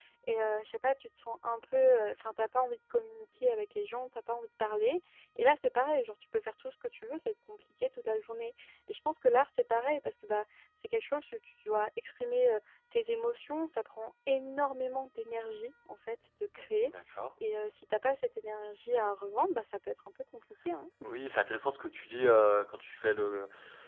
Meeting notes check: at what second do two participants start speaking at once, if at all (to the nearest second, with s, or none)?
none